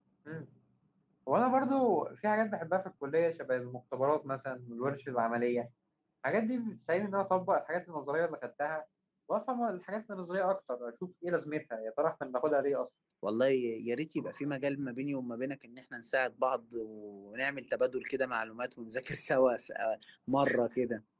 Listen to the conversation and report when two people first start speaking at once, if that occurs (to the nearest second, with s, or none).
none